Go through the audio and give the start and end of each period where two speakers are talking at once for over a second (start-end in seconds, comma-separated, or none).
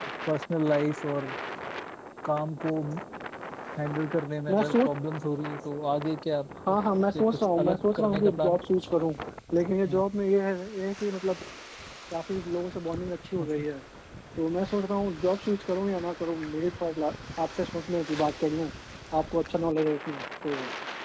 7.1-8.6